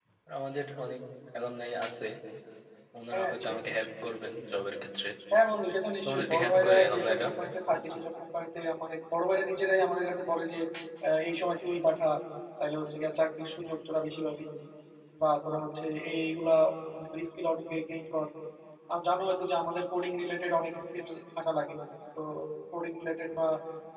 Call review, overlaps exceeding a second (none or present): present